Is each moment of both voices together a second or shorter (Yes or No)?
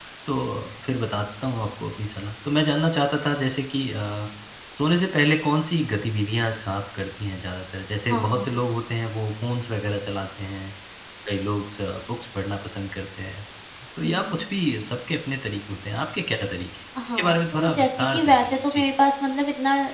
No